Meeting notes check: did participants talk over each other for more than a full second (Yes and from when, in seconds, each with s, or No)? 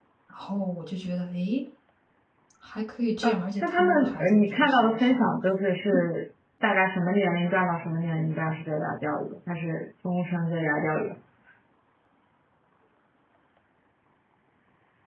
Yes, from 3.2 s